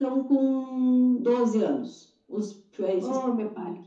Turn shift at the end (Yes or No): Yes